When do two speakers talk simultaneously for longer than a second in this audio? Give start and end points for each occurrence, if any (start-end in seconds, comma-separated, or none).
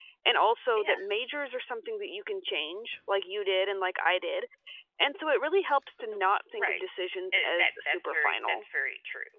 7.3-8.6